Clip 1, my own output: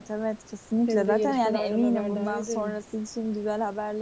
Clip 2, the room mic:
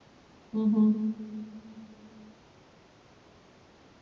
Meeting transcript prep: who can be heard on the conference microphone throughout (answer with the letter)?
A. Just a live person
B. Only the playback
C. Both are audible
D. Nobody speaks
A